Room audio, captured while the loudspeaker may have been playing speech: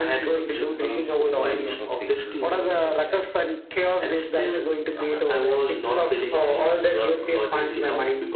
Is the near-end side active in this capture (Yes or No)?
Yes